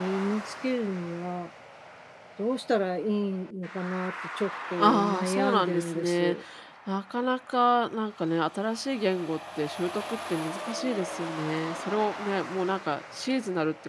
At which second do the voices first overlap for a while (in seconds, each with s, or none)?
4.8 s